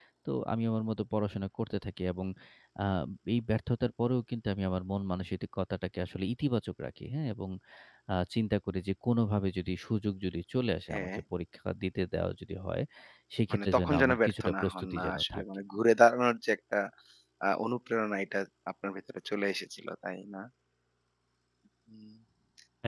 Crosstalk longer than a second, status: present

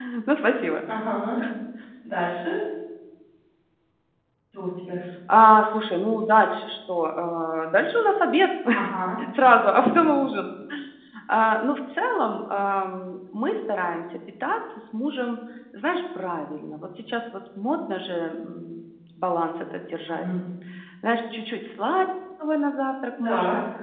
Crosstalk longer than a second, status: none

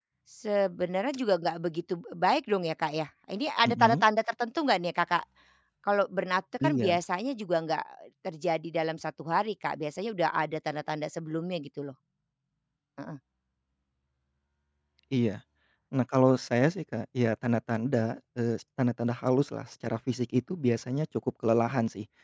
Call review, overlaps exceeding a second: none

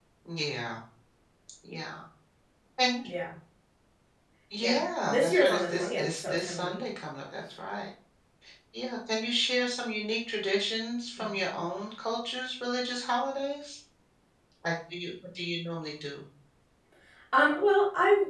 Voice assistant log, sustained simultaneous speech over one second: present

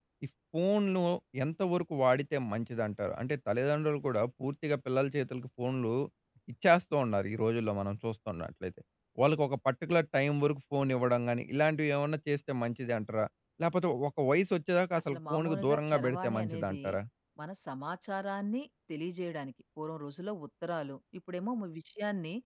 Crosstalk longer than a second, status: present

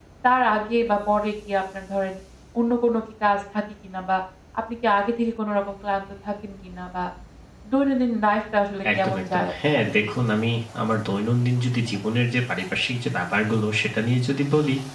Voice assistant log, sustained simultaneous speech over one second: present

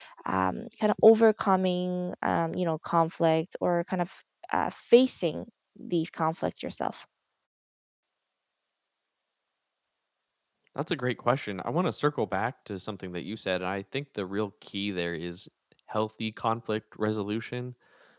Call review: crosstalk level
none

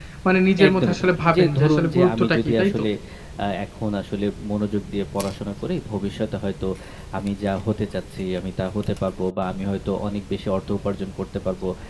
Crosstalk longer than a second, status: present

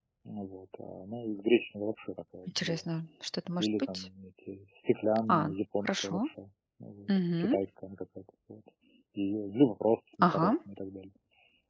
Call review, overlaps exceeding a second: none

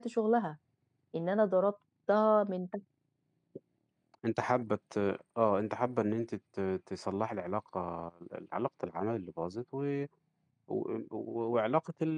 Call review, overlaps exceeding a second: none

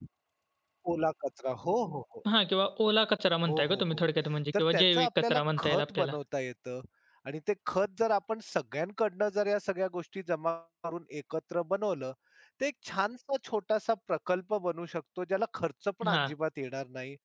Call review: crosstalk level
present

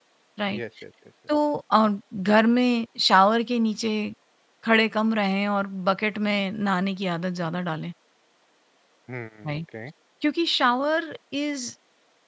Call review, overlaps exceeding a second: none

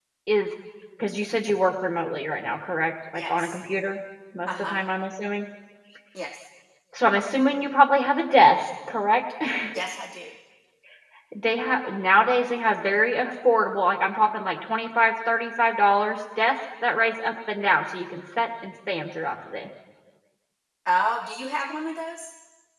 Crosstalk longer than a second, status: none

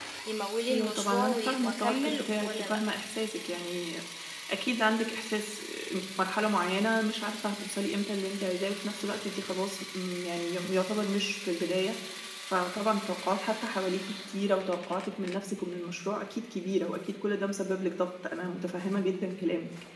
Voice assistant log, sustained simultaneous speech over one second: present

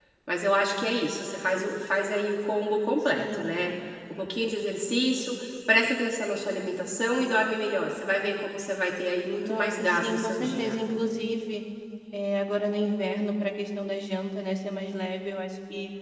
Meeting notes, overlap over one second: present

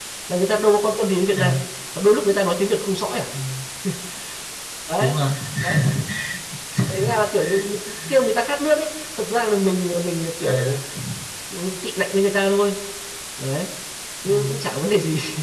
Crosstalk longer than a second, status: none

